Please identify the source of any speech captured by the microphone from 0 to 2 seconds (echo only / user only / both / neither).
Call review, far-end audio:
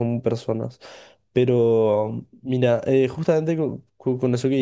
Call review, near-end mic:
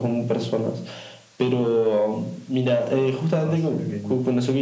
echo only